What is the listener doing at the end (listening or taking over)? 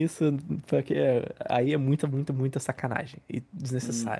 taking over